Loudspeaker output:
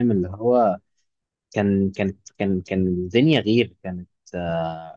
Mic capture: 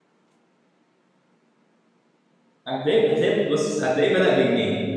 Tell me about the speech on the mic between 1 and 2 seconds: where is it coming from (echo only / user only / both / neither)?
neither